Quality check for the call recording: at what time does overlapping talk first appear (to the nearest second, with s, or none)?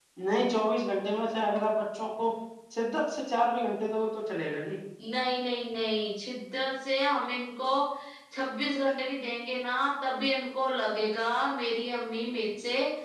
none